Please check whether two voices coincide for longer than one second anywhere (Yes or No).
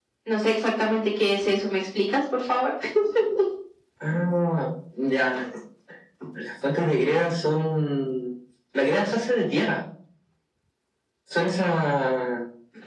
No